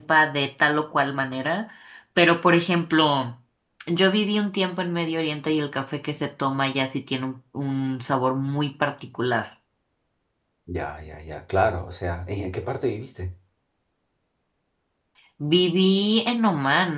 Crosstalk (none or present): none